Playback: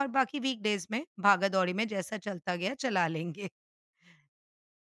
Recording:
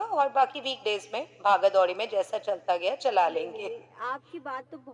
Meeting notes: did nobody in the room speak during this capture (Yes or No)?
No